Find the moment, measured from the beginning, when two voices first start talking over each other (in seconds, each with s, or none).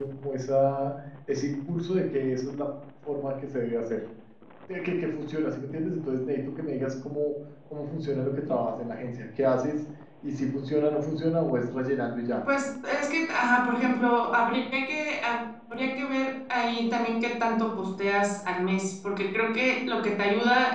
none